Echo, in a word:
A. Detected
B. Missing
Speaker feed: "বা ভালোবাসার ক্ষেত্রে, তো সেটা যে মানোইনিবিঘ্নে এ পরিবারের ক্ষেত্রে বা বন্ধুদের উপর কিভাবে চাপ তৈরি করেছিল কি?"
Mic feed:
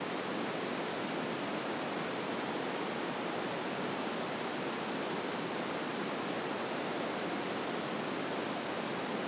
B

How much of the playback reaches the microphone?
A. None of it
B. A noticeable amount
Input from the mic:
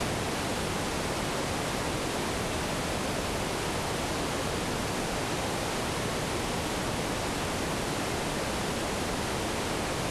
A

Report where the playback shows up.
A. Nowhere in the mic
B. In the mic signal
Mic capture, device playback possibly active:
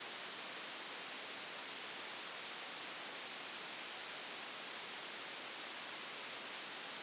A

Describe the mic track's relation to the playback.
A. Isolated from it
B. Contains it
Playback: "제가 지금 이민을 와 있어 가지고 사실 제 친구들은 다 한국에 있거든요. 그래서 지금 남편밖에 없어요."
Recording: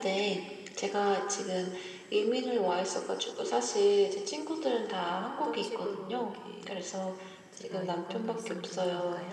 B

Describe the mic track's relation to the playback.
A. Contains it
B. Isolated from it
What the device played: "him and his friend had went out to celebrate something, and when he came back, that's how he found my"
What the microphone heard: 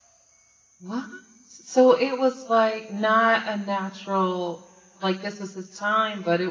B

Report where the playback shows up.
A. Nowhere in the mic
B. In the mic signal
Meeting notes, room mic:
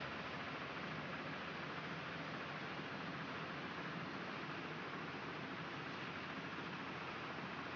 A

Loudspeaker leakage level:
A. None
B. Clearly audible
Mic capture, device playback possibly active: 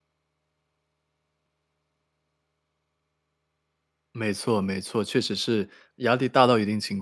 A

